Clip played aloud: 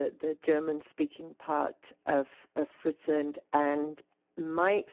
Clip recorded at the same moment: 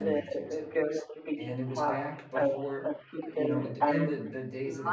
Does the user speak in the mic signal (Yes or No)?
Yes